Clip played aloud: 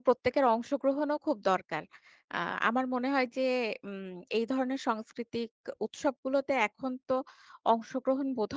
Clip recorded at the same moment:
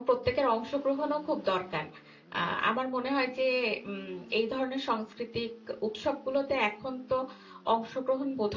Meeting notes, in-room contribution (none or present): none